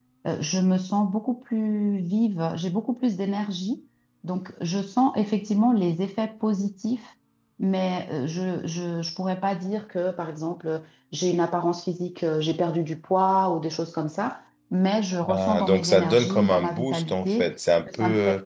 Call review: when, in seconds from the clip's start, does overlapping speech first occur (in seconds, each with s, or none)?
15.2 s